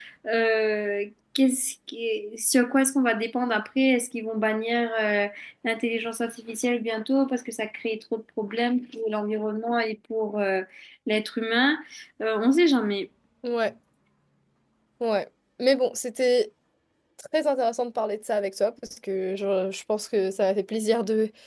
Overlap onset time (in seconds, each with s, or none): none